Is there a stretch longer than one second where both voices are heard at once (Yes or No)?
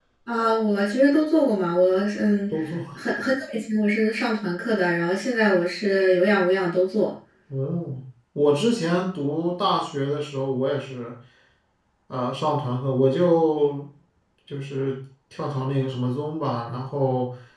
No